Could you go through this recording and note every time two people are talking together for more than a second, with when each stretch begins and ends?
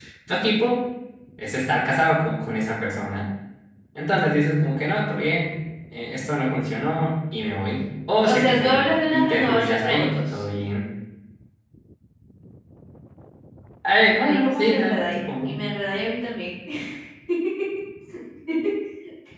8.2-10.4, 14.2-15.6

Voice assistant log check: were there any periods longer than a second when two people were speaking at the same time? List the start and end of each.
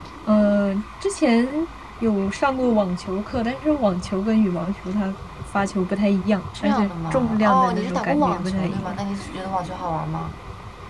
6.6-9.0

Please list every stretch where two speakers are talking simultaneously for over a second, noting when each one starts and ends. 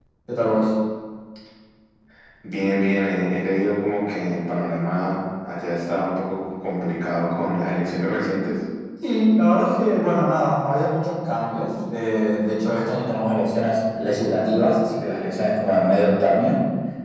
none

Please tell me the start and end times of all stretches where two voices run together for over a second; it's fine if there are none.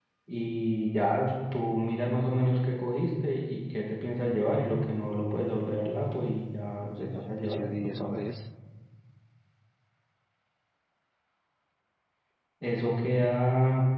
6.8-8.2

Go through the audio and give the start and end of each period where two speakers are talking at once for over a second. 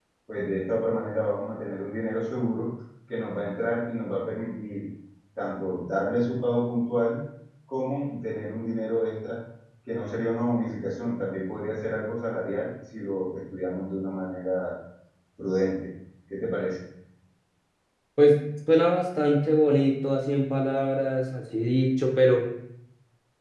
none

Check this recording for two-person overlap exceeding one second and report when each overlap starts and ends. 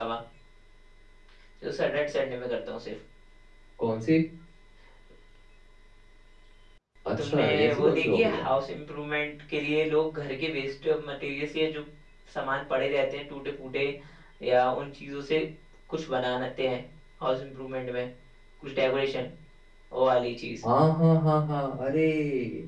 7.2-8.4

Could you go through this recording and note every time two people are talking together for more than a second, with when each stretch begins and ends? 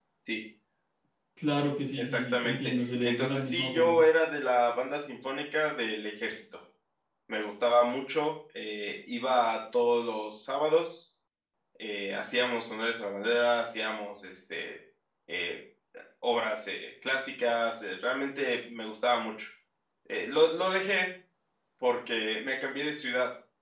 2.0-4.0

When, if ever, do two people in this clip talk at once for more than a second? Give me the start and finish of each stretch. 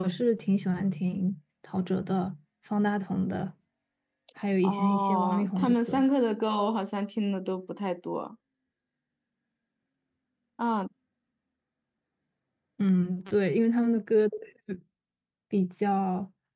4.6-6.0

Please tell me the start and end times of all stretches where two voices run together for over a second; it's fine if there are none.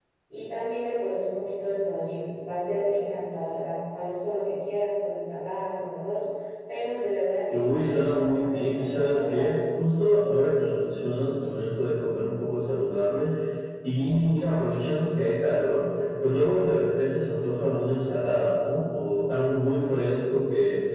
7.5-9.5

